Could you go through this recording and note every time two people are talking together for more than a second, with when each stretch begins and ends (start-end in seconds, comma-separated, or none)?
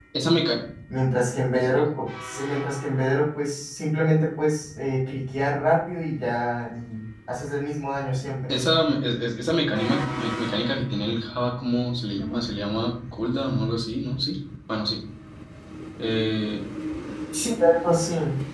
none